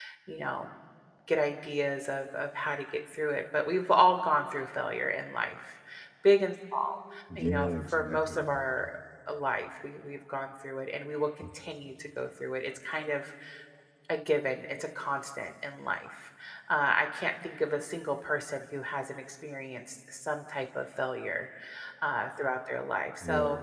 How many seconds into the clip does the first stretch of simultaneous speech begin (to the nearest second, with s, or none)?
7 s